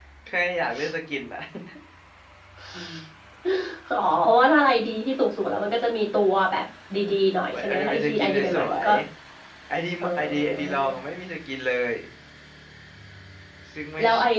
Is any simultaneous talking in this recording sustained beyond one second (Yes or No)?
Yes